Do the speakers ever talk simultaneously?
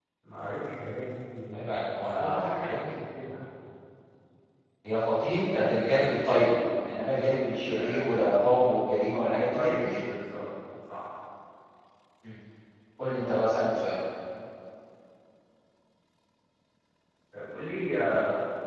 Yes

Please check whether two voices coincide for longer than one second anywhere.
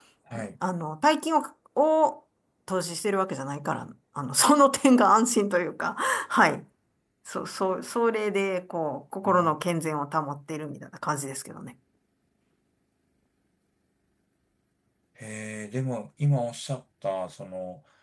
No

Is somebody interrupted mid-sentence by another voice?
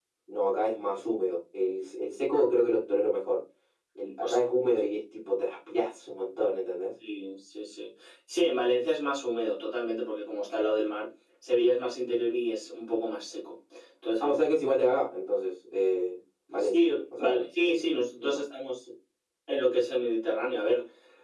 Yes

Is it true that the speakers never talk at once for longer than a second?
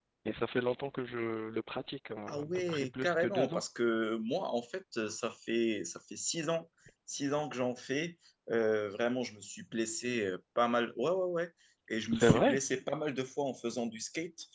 No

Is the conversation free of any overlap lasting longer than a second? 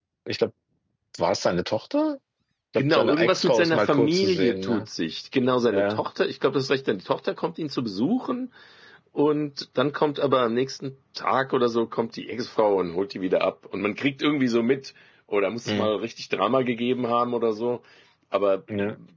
No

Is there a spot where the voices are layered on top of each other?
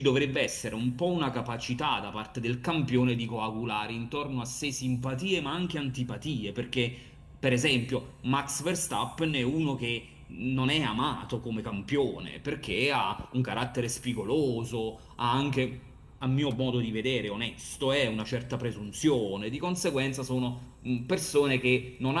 No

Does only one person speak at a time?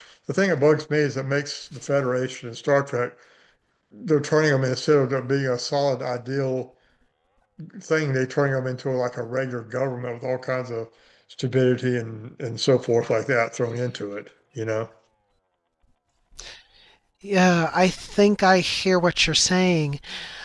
Yes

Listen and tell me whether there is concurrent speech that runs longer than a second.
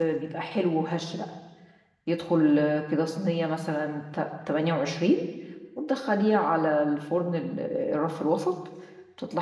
No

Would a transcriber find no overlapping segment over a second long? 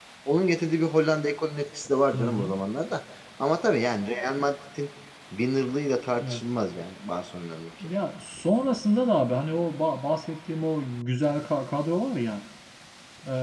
Yes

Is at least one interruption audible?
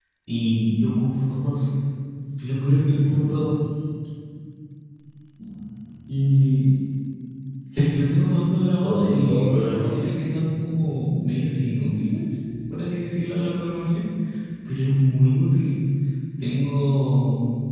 Yes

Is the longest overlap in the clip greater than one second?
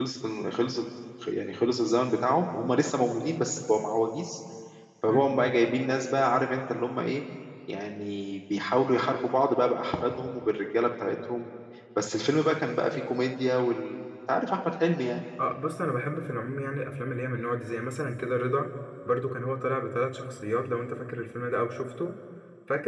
No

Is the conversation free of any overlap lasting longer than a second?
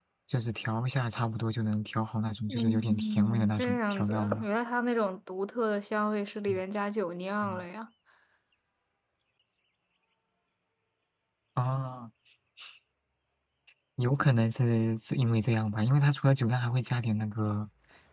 No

